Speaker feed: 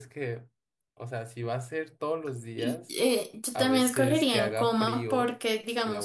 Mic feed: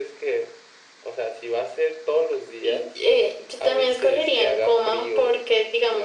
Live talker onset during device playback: none

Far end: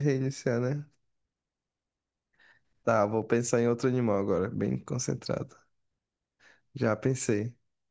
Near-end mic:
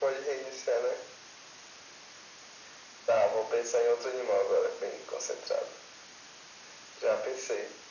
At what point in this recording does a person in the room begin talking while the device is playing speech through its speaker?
none

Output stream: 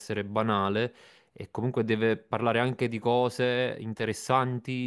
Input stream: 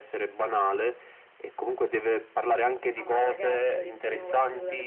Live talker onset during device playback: 3.0 s

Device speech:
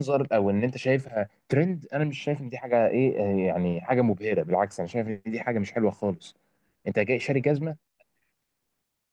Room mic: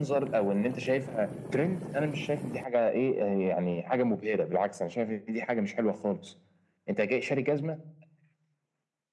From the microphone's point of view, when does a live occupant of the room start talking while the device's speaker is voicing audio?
none

